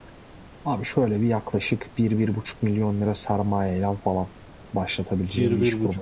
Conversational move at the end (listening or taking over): taking over